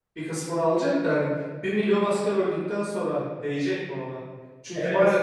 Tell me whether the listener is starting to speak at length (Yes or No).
No